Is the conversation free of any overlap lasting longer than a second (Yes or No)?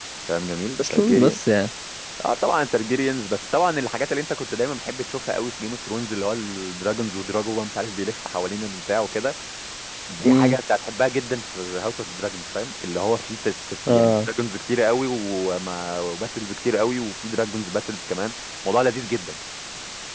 Yes